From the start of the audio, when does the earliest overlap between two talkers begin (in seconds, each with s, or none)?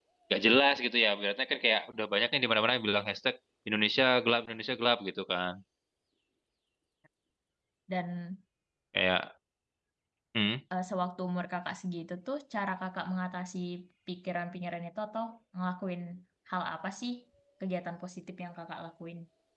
none